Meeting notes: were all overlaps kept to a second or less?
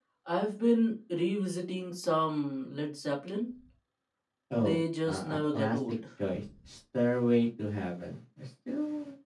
No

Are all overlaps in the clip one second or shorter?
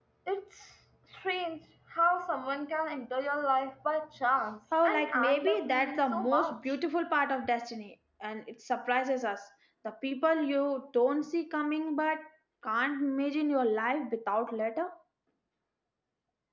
No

